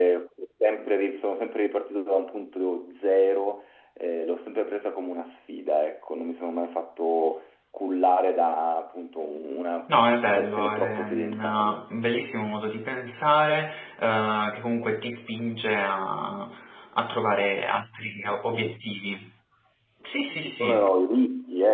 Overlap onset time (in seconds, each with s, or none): 10.1 s